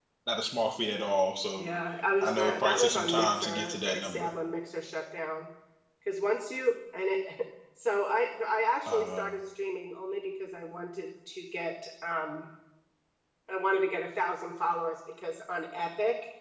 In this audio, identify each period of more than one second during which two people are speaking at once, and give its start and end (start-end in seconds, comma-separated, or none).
2.2-4.3